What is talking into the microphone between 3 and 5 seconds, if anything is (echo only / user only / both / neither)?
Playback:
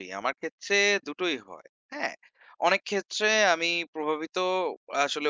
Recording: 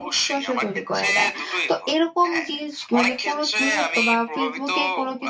both